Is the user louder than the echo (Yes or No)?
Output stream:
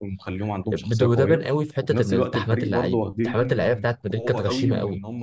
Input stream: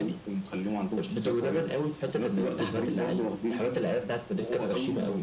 No